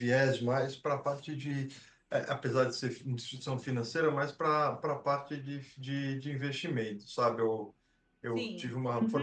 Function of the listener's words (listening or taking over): listening